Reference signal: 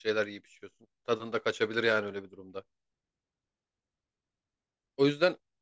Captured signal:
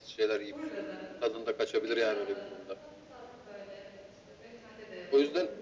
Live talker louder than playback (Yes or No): No